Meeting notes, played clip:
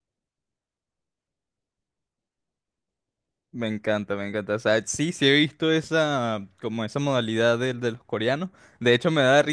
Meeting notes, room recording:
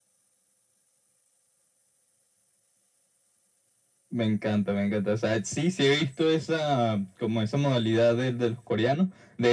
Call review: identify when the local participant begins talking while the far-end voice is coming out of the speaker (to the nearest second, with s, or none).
none